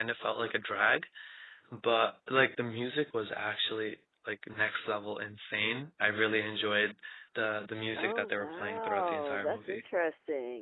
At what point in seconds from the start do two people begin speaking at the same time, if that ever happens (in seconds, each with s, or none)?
8.0 s